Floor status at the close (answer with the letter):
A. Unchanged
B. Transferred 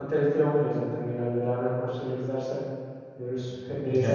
B